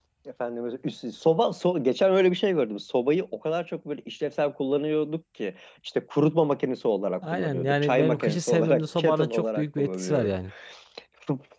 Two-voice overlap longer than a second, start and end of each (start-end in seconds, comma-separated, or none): 7.3-10.3